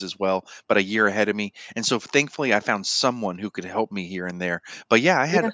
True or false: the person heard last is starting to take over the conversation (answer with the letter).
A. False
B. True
A